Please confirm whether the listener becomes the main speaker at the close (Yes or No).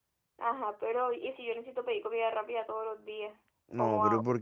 Yes